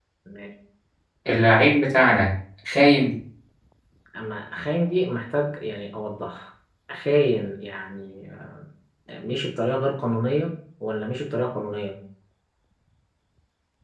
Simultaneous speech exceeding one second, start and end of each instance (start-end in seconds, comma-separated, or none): none